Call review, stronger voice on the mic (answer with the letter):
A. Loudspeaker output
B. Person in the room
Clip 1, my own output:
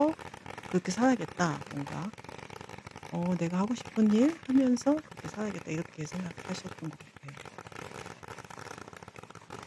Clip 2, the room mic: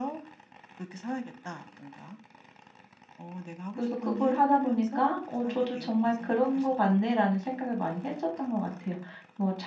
B